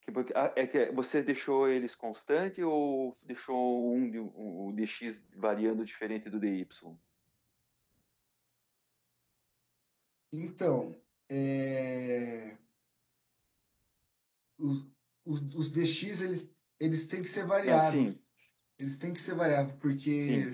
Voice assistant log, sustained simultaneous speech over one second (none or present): none